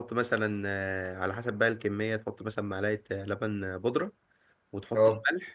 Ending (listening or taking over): listening